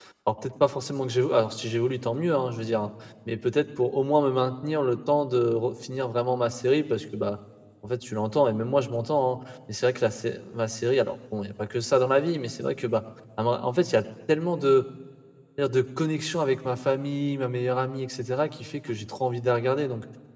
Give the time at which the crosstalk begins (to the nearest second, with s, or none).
none